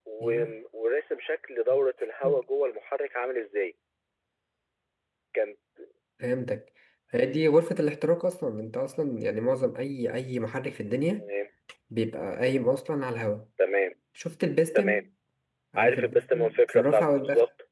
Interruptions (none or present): present